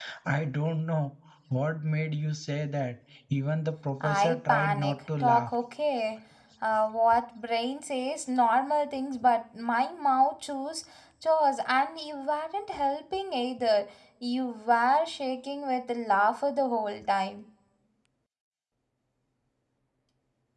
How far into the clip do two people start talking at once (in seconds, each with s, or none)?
4.0 s